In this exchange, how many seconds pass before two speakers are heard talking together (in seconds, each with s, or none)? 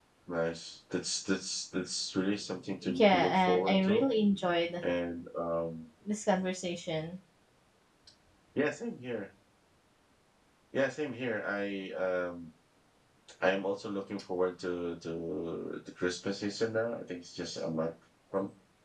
2.8 s